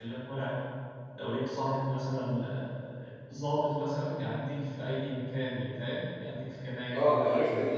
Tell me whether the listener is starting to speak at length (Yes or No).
Yes